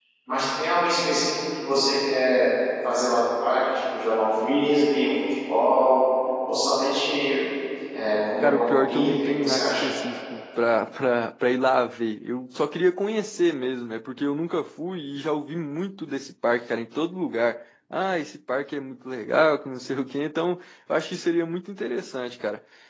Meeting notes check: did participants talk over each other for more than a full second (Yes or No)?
Yes